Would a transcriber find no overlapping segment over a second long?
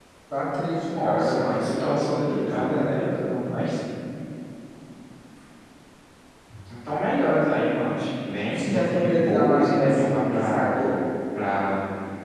No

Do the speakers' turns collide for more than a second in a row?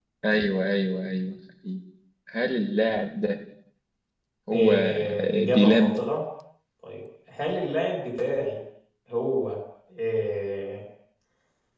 Yes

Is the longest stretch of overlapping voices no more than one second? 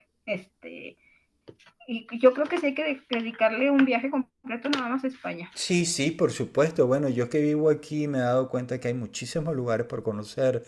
Yes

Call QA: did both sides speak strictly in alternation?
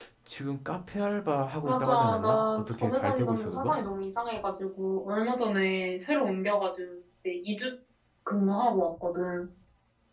No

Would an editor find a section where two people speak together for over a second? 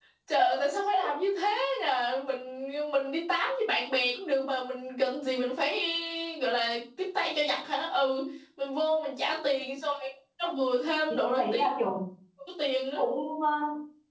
No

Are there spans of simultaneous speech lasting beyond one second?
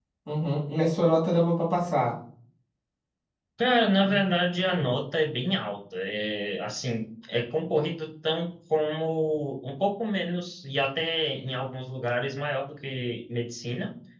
No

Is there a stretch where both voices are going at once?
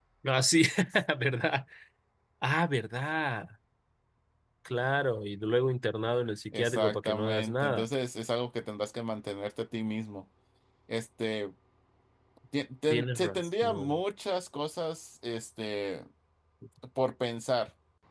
Yes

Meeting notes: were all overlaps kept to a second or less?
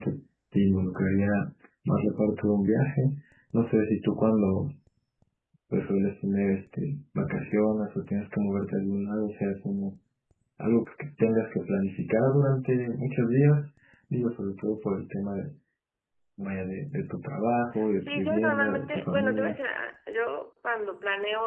No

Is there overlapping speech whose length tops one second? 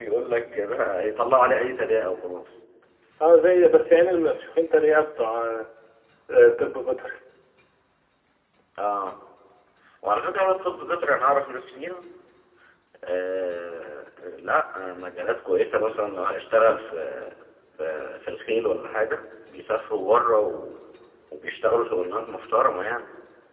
No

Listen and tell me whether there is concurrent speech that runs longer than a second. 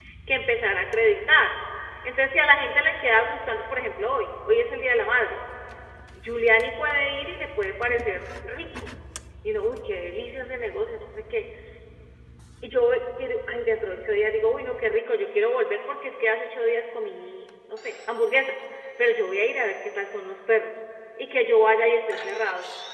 No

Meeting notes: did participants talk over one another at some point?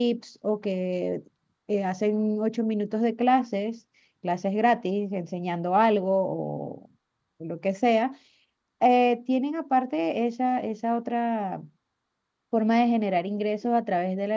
No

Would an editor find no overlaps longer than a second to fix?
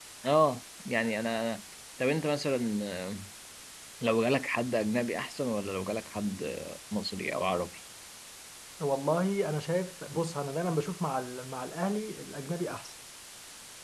Yes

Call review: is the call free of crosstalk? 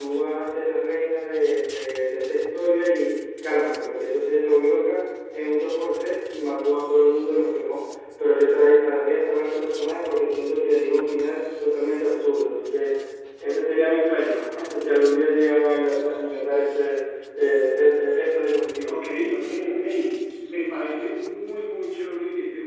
Yes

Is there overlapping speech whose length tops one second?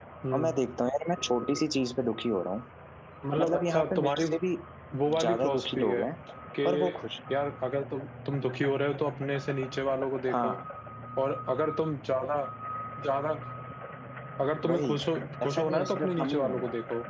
Yes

